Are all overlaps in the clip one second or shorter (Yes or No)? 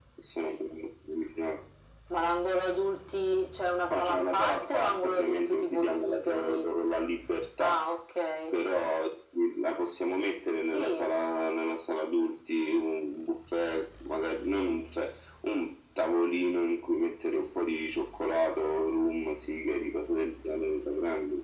No